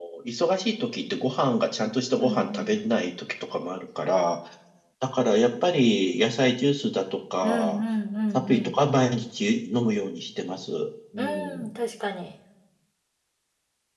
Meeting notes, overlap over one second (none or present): none